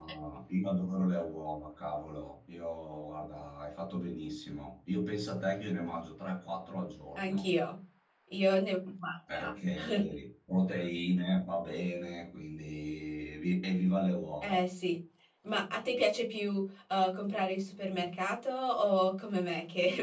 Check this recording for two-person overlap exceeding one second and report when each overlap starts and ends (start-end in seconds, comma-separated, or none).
none